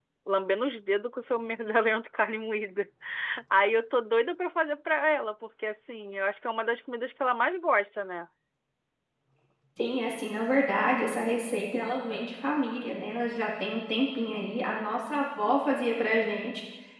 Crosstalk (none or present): none